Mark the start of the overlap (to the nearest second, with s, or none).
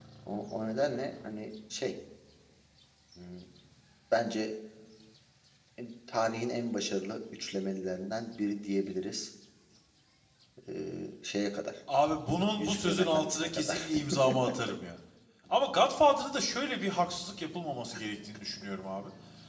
13 s